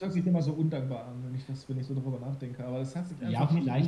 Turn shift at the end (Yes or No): Yes